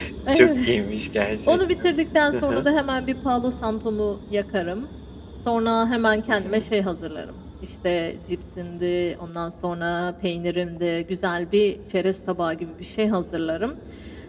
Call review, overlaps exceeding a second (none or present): none